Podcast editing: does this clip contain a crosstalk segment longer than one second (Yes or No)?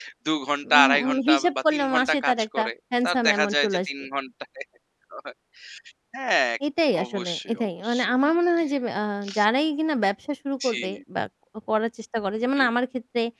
Yes